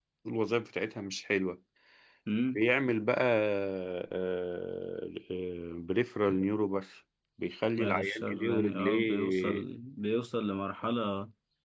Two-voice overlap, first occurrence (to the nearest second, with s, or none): 8 s